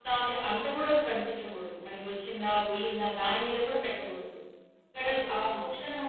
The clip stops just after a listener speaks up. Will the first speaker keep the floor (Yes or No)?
Yes